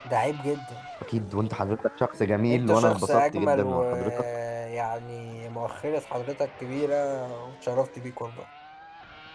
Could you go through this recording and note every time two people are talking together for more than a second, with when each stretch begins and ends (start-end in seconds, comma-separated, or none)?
2.5-4.3